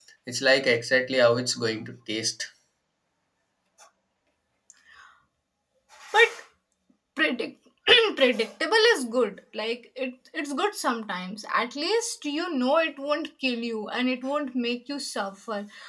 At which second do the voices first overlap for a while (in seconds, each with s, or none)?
none